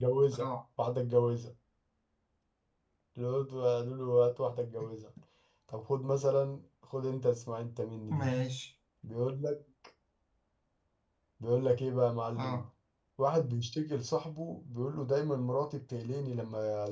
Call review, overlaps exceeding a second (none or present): none